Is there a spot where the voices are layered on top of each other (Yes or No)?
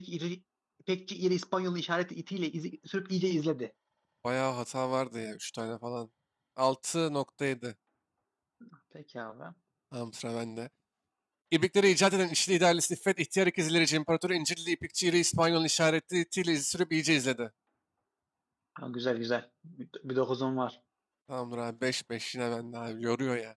No